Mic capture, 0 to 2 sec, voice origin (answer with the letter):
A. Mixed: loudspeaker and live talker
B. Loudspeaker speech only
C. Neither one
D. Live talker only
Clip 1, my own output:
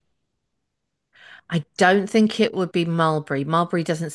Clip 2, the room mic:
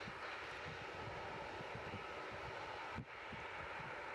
C